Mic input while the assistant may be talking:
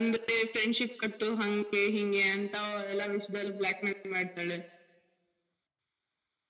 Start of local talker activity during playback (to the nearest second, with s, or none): none